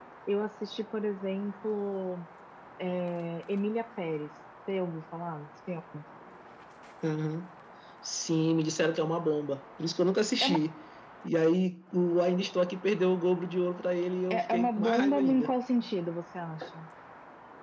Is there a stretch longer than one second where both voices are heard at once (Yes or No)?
Yes